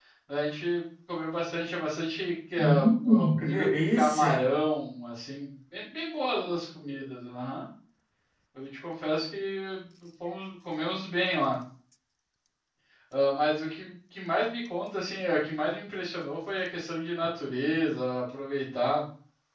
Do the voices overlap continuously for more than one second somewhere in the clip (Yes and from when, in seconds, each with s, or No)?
Yes, from 2.6 s